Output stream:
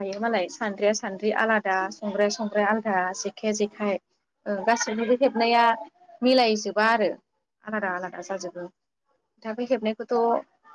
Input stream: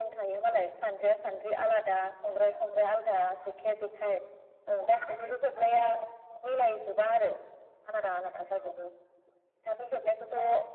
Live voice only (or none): none